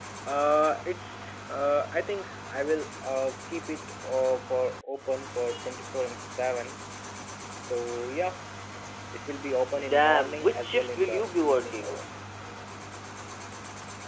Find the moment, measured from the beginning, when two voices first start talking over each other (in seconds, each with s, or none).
9.9 s